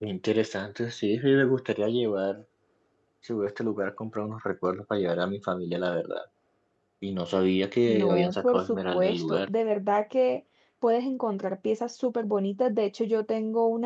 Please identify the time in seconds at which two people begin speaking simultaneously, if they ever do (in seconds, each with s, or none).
7.9 s